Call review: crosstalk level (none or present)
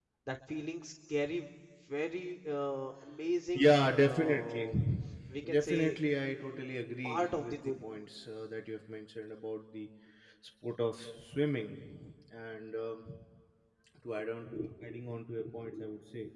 present